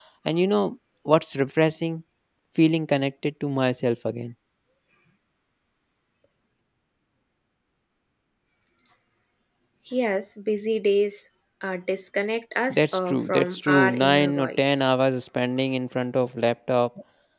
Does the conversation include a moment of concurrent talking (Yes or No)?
Yes